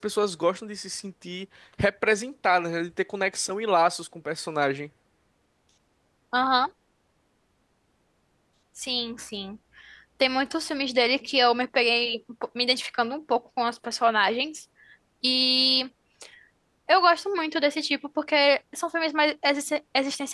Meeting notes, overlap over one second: none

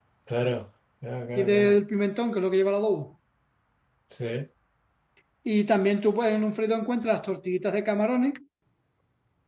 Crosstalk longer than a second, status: none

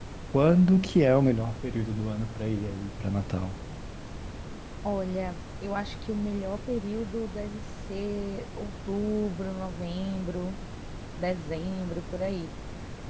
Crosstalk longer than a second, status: none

